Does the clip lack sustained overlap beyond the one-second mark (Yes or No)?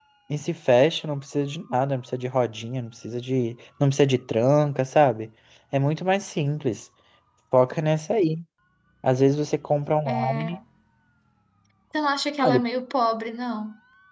Yes